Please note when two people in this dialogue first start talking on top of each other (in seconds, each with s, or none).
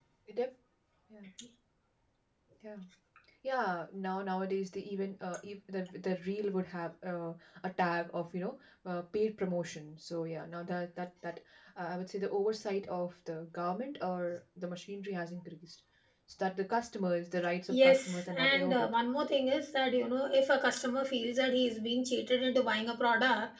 17.7 s